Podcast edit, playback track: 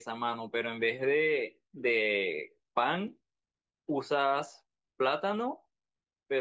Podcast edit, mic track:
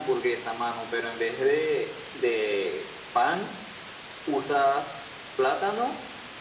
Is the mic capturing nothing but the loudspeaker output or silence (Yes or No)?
Yes